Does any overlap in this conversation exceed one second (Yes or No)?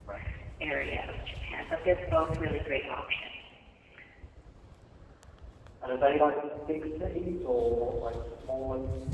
No